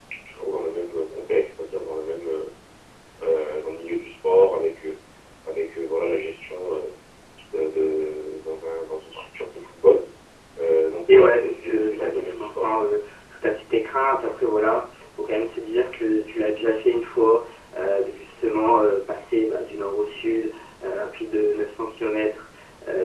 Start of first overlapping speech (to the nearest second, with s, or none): 11 s